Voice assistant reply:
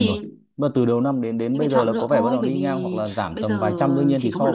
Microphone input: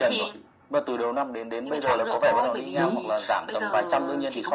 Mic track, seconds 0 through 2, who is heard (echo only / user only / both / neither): echo only